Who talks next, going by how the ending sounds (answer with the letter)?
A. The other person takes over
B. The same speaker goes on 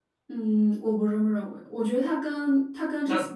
B